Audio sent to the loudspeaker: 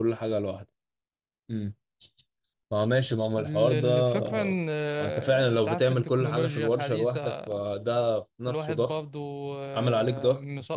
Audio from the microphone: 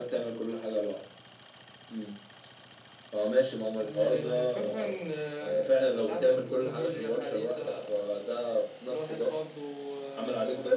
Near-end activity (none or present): none